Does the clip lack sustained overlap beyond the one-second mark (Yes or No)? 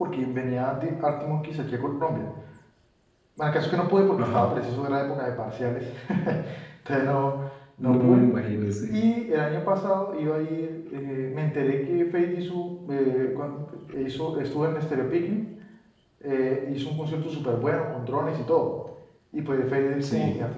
Yes